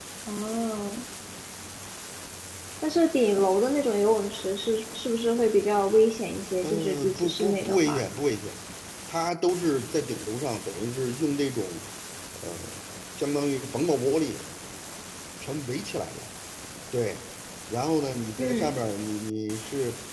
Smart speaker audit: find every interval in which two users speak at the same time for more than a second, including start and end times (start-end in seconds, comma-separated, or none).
6.6-8.0